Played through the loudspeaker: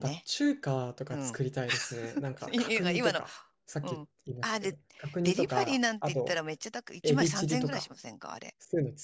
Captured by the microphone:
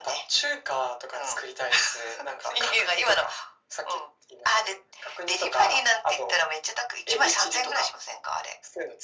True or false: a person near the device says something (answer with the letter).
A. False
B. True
A